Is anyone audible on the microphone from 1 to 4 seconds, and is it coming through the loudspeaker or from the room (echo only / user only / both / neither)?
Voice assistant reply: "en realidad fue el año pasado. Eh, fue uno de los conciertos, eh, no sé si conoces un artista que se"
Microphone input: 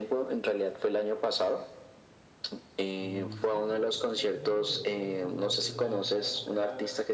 both